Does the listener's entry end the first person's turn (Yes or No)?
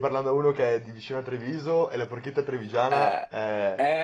Yes